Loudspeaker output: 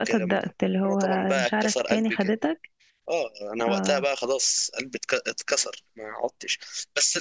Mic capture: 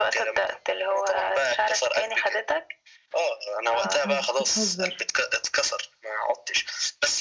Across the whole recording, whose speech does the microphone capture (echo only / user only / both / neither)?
both